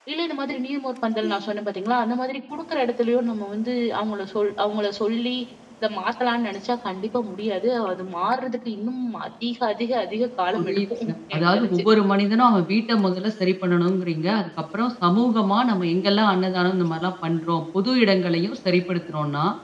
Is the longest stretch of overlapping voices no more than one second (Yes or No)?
No